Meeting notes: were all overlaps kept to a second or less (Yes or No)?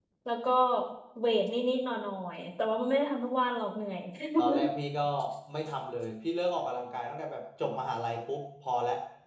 Yes